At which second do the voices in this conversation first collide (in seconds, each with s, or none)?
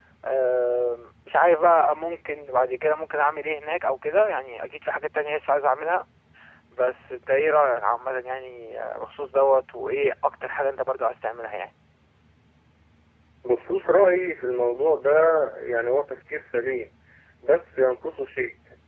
none